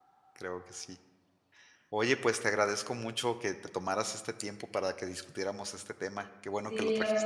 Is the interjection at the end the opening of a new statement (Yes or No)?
Yes